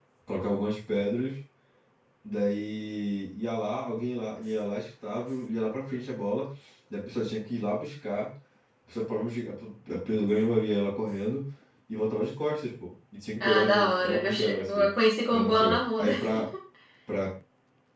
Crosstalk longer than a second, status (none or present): present